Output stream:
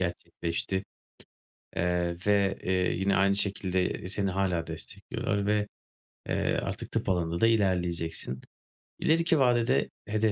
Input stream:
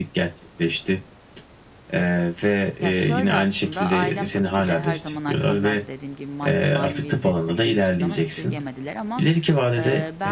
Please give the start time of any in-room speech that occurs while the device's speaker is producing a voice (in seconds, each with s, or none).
2.8 s